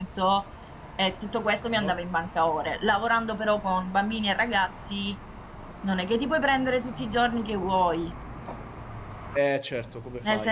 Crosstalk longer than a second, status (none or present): none